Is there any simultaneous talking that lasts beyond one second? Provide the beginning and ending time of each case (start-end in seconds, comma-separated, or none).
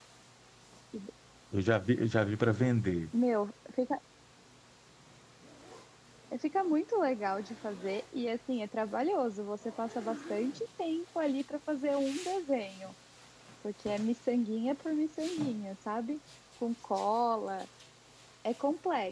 none